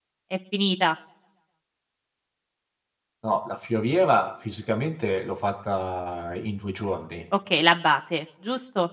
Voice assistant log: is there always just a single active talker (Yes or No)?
Yes